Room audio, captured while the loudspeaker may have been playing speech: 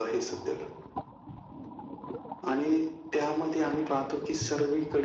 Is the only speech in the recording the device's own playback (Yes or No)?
Yes